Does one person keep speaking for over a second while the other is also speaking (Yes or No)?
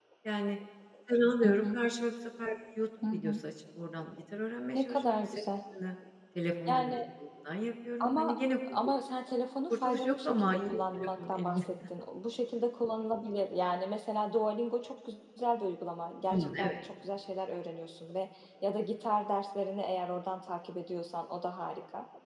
Yes